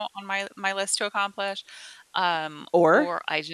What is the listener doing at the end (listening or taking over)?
listening